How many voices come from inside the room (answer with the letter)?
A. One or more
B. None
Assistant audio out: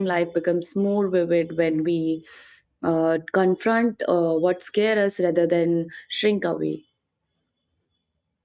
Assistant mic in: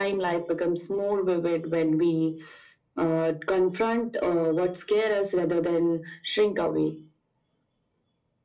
B